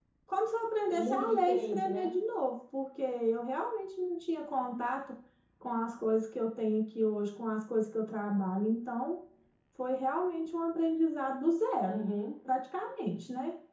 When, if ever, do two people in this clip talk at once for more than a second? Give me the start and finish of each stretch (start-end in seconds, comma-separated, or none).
0.9-2.1